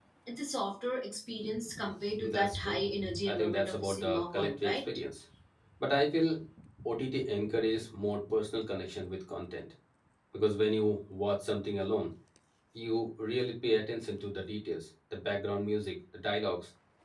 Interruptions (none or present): present